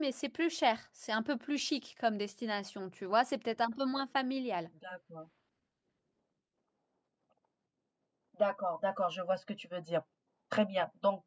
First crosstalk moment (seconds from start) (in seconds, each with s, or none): none